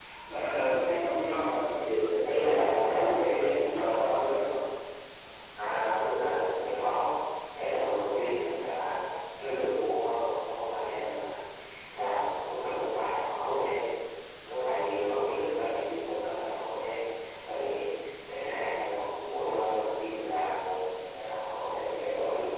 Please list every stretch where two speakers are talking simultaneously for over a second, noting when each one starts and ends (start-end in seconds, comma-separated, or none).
2.2-4.5